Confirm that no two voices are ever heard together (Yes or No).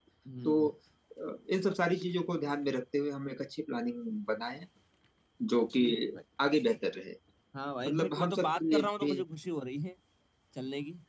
No